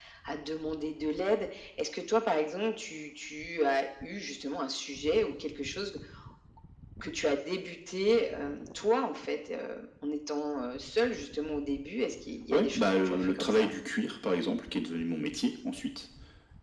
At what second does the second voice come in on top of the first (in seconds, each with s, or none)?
12.5 s